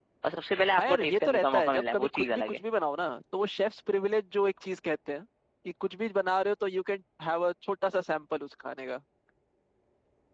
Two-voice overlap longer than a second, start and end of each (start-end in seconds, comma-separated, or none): 0.8-2.6